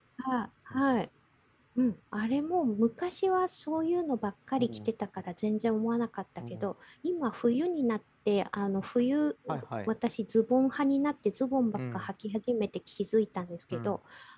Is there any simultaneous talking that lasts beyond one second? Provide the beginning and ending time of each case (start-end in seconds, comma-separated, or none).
none